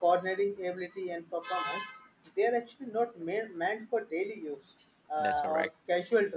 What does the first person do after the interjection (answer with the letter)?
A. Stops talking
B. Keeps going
B